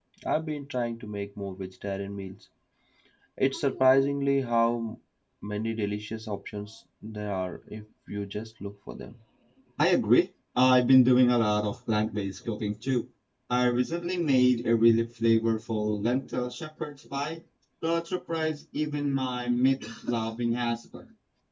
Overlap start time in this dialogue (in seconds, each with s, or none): none